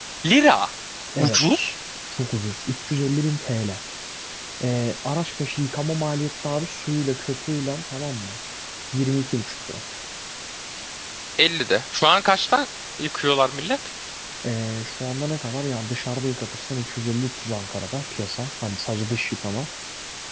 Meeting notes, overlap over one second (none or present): none